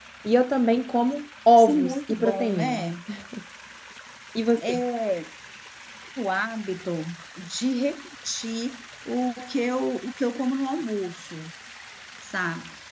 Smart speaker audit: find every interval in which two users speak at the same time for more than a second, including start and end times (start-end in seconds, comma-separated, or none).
1.6-2.8